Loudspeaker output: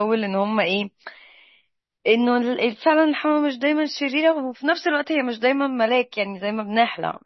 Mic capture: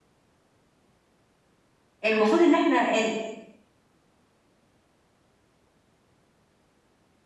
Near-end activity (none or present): present